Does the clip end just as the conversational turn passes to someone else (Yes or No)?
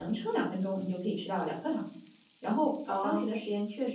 No